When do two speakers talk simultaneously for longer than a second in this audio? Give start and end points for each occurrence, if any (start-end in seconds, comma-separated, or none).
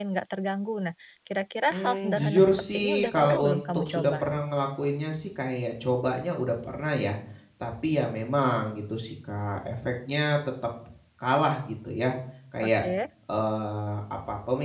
1.7-4.3